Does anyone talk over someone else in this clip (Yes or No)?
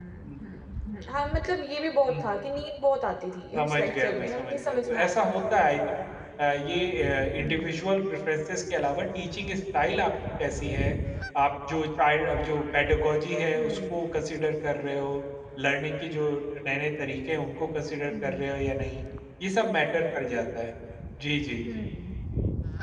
Yes